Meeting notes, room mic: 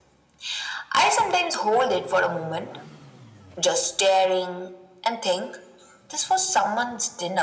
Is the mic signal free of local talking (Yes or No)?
Yes